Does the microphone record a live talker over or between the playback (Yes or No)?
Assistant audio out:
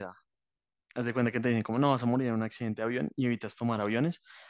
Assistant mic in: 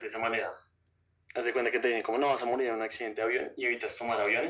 No